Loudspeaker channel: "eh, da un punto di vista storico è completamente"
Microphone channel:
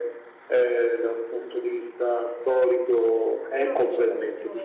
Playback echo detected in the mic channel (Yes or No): Yes